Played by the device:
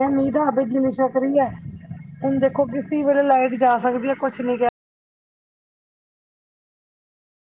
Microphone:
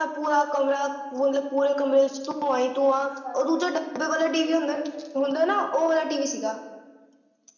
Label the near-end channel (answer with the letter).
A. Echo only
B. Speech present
B